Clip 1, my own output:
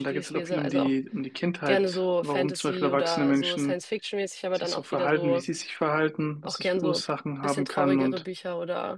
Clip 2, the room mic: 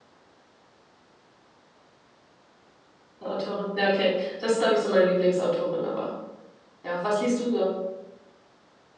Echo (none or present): none